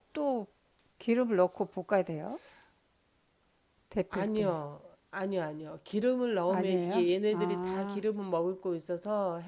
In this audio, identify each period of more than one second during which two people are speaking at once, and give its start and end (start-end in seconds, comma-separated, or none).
6.5-8.0